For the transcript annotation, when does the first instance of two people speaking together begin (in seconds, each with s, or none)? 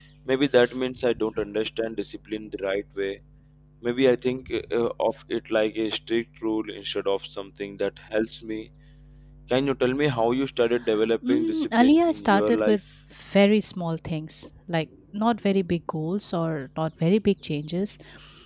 11.2 s